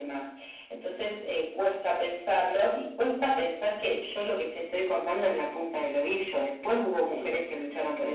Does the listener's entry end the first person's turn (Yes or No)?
No